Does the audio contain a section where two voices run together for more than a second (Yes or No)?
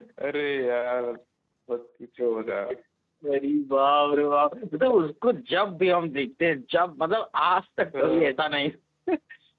No